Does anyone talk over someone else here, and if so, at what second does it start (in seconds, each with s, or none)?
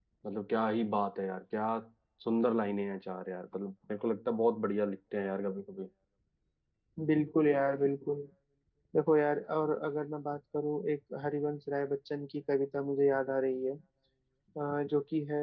none